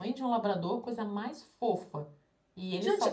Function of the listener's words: taking over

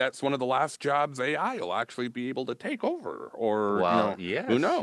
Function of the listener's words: taking over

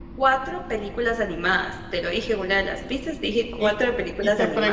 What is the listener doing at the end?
taking over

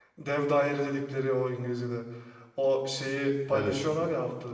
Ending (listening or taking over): listening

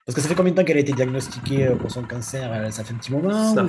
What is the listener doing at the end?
taking over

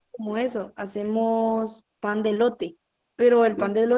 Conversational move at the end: listening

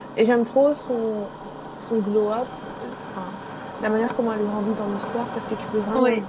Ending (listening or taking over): listening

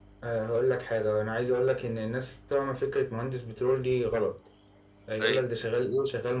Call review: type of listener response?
listening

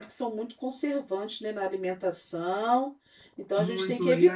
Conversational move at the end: taking over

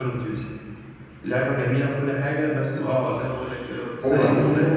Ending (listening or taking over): taking over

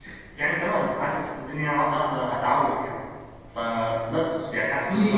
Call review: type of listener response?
taking over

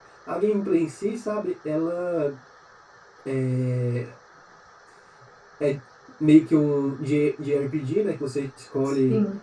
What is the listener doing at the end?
listening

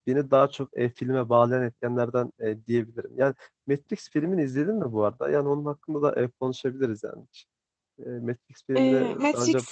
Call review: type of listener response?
taking over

